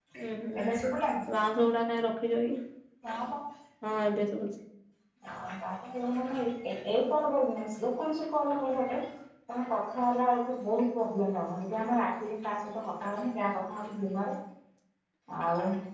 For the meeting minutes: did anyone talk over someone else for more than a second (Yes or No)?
No